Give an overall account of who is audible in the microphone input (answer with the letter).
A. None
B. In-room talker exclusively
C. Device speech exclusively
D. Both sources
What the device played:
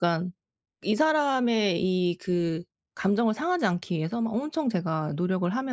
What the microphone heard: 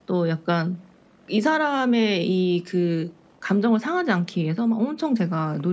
C